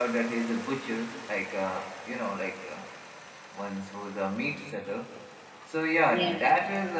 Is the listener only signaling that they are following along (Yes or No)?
Yes